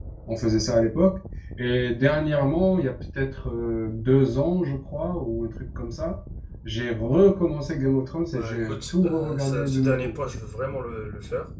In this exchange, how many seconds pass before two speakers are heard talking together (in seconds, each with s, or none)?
8.3 s